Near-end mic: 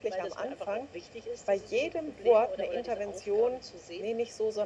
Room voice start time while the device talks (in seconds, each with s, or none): none